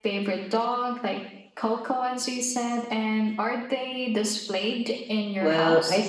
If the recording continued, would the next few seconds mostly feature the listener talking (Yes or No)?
Yes